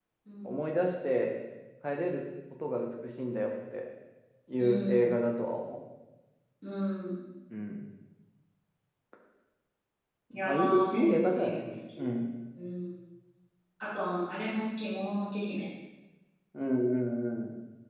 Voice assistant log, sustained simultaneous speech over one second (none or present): present